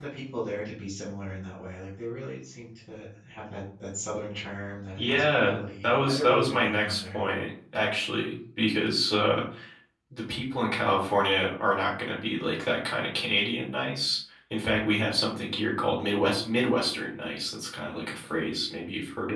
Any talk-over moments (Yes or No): Yes